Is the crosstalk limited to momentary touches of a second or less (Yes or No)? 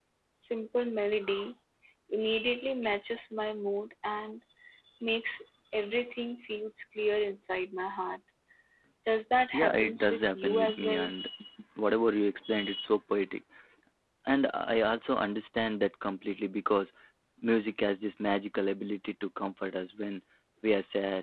No